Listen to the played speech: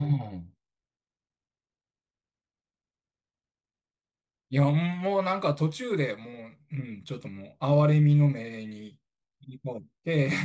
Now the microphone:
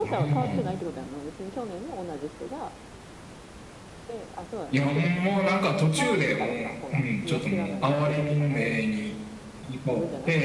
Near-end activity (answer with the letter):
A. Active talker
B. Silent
A